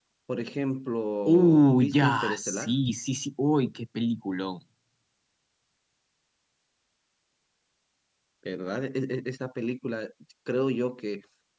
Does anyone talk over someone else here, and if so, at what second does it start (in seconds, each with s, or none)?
1.3 s